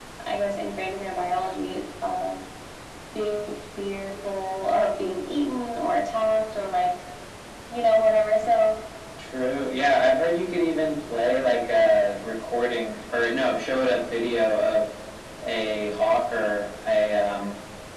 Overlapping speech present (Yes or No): No